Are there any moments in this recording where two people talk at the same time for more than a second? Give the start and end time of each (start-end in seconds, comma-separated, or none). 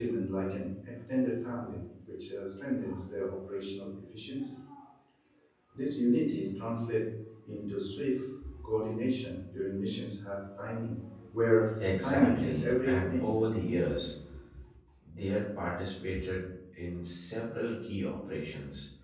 12.0-13.3